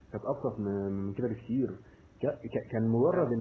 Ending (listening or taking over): listening